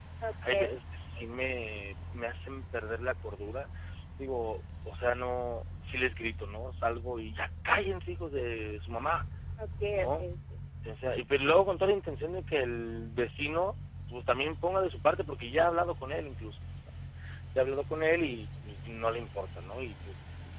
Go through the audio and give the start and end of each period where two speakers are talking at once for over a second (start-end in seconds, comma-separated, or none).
none